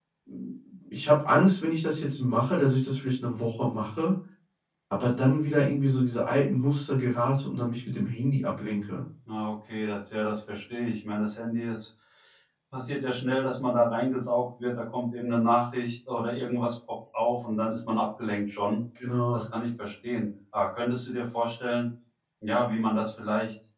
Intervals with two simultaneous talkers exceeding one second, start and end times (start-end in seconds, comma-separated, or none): none